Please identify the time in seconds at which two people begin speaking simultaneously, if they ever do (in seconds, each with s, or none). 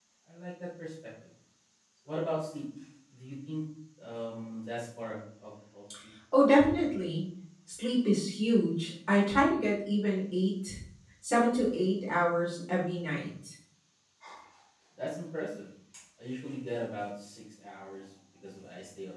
none